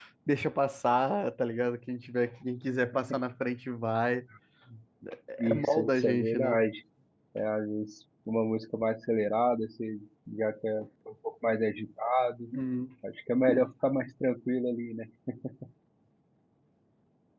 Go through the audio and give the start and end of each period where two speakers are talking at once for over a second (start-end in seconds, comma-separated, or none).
5.4-6.6